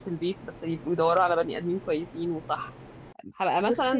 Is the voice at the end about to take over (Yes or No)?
No